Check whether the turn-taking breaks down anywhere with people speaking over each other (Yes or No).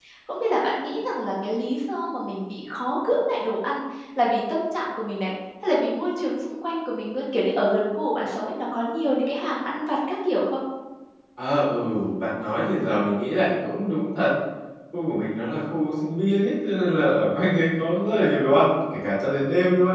No